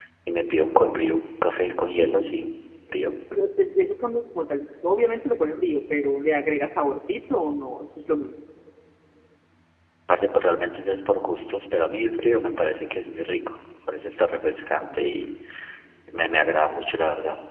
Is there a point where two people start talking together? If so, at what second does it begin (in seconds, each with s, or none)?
none